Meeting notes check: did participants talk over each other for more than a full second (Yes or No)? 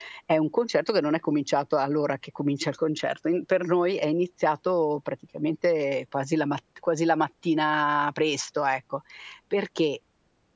No